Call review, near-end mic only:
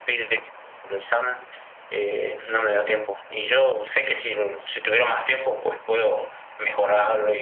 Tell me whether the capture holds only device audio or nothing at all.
Yes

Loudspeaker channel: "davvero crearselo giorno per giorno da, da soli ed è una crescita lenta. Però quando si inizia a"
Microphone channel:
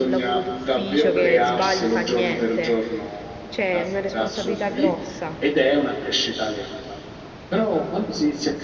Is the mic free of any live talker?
No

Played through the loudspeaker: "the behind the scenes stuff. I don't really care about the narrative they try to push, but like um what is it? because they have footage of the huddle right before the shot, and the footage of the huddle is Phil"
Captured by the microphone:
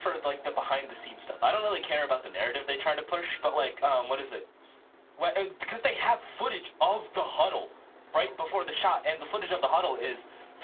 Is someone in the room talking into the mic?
No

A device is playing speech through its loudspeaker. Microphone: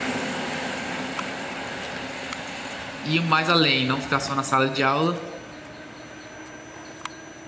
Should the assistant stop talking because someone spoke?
Yes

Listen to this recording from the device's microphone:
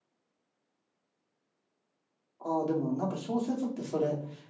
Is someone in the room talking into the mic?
Yes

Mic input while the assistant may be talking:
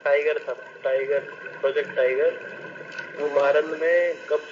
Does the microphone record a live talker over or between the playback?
Yes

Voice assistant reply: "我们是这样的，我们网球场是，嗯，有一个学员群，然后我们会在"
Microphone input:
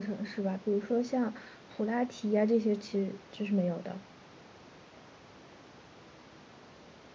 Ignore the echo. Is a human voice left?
Yes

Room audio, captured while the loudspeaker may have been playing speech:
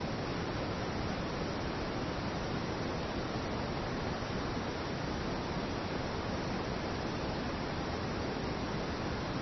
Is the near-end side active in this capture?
No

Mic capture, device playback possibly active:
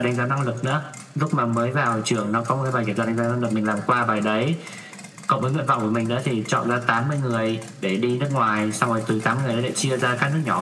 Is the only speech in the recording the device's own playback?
Yes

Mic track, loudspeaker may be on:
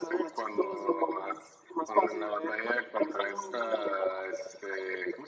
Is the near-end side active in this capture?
No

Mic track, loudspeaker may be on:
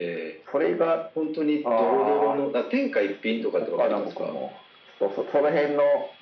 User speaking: No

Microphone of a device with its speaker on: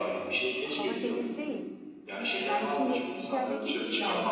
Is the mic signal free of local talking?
No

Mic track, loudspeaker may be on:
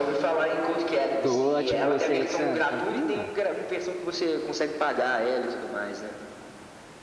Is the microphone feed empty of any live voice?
No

